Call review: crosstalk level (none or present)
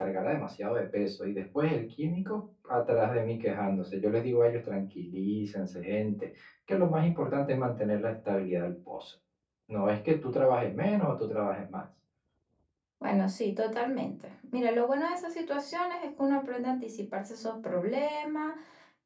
none